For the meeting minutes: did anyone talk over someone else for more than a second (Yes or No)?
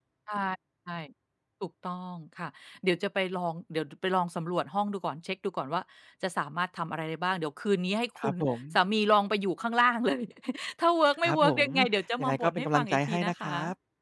Yes